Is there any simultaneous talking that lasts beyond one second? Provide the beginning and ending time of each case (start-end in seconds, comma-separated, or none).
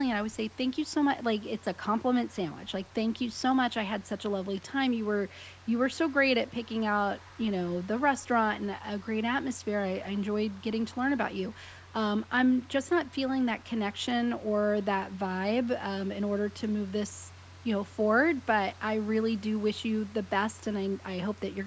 none